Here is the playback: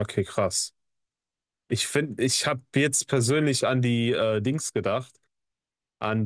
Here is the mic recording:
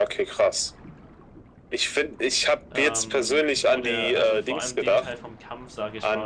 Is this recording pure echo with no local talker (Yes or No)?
No